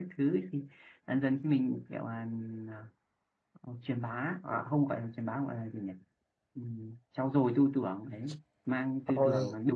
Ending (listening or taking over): listening